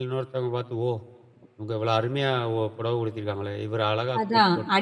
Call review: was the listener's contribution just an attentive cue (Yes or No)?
No